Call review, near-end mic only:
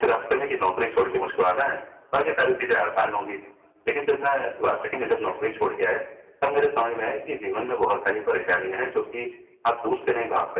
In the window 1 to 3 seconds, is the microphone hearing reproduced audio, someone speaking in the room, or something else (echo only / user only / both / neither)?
echo only